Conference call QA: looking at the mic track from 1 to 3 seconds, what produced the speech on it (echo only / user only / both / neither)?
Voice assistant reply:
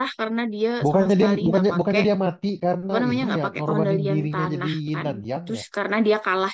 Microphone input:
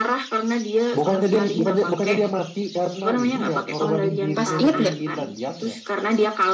echo only